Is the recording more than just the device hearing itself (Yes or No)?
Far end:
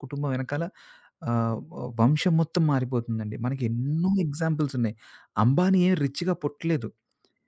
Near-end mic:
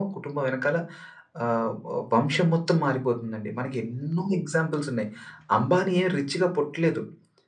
No